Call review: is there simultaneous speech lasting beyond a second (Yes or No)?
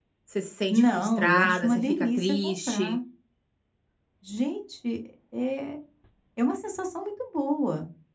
Yes